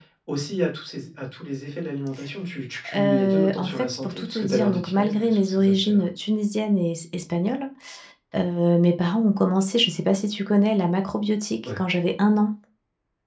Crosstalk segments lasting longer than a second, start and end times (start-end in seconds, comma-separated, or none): 2.9-6.0